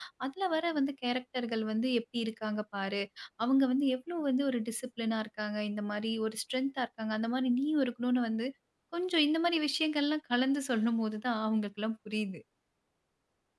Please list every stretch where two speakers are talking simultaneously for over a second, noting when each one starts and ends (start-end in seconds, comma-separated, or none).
none